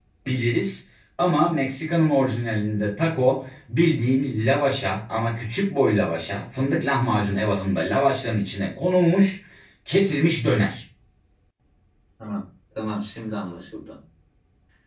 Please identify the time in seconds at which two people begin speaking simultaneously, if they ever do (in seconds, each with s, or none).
none